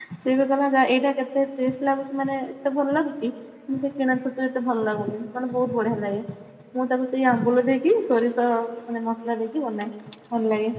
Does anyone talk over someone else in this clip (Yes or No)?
No